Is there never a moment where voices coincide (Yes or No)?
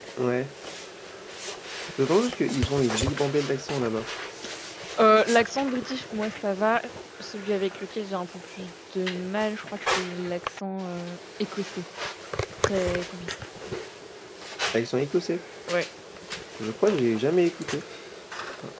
Yes